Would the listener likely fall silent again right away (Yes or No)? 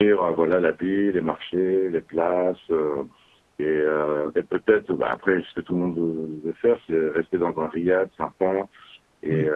Yes